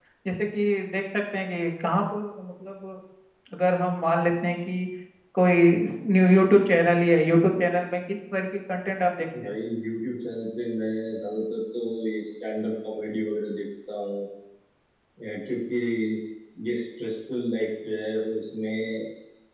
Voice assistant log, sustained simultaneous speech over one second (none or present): none